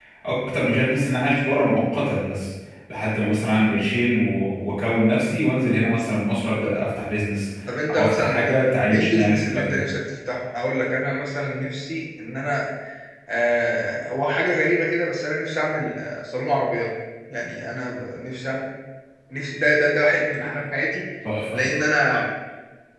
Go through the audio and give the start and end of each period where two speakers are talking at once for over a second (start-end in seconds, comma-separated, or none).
8.0-9.8